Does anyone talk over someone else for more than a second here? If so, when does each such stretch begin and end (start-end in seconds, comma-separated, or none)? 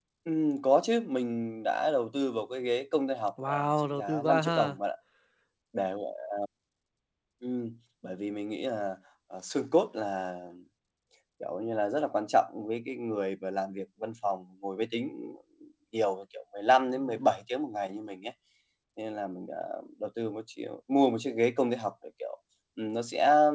3.5-4.8